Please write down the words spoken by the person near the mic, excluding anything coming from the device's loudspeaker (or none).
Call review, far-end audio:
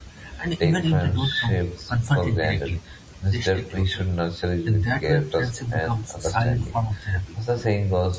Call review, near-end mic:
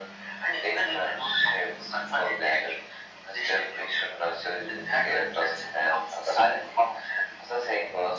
none